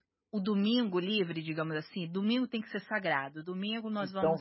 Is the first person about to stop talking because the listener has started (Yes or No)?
Yes